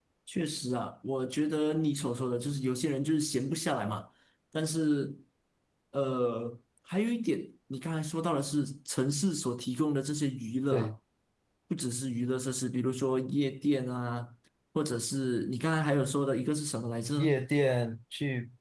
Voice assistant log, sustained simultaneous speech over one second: none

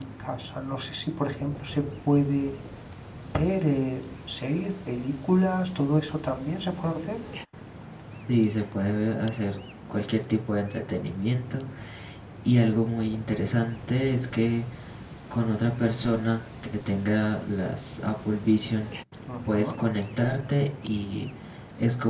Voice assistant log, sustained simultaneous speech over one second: none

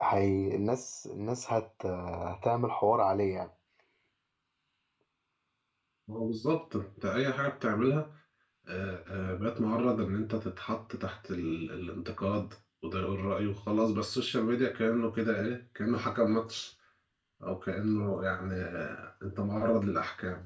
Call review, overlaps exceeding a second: none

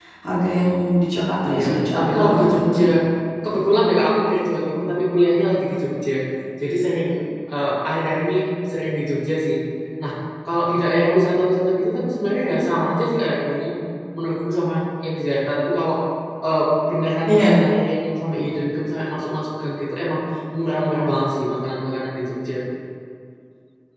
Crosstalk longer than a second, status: present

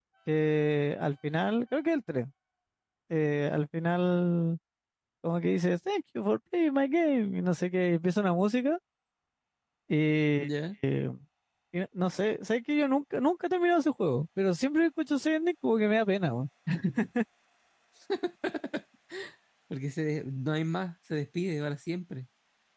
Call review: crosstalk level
none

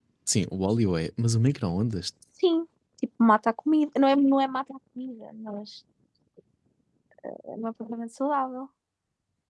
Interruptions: none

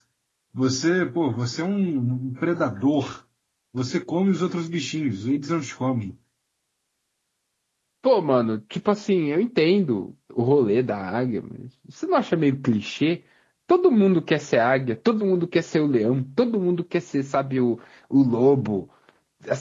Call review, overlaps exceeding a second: none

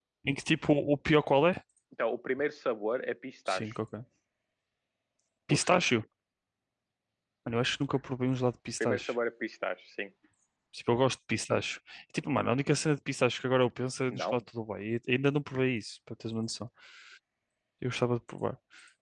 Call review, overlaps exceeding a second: none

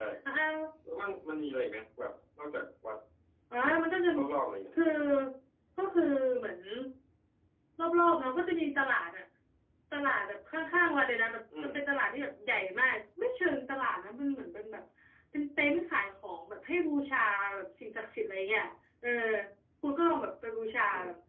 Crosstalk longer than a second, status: none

